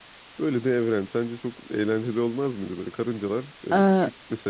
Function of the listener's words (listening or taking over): listening